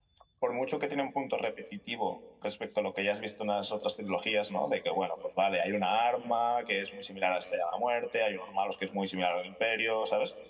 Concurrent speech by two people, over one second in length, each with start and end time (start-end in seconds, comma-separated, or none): none